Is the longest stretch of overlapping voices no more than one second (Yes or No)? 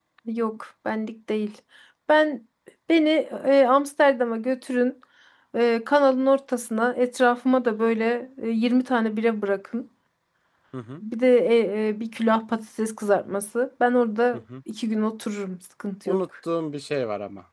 Yes